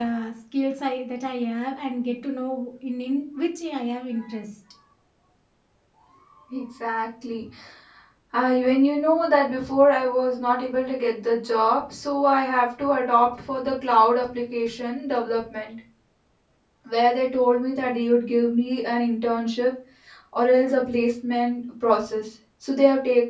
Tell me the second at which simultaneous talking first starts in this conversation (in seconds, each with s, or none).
none